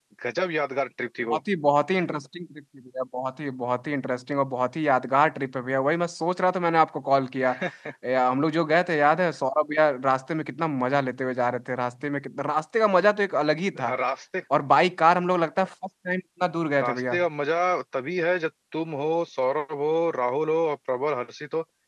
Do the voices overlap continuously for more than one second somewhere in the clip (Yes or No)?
No